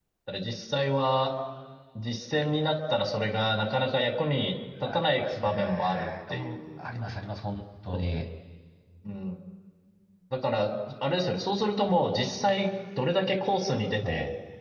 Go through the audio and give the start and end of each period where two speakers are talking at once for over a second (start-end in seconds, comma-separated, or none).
4.9-6.6